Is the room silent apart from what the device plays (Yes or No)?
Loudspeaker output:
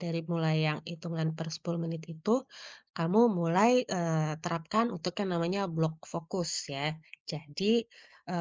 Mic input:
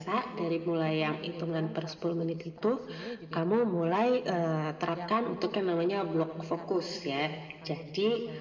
No